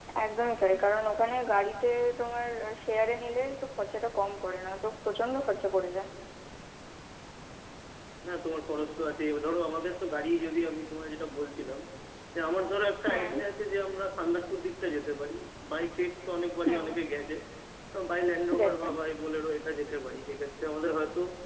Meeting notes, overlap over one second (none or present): none